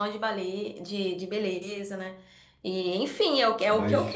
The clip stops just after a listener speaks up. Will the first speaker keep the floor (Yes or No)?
Yes